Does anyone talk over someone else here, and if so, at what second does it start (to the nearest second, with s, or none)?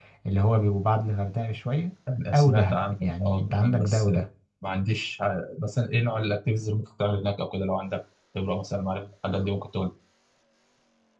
2 s